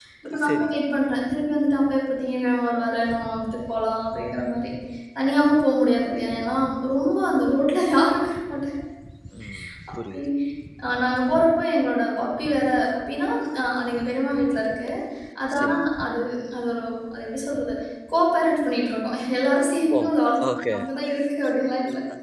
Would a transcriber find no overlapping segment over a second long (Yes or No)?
Yes